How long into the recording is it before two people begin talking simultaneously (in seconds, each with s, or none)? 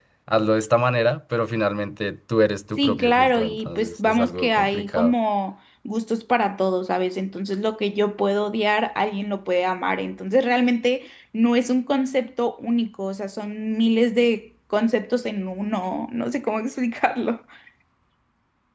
2.8 s